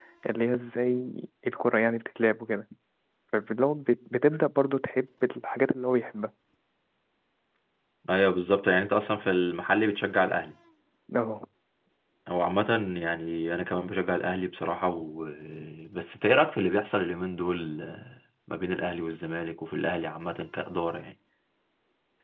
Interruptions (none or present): none